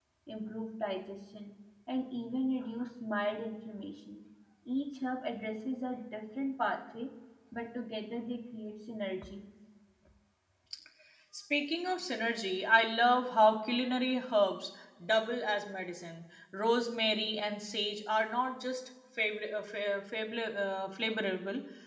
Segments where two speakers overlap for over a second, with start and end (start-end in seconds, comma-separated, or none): none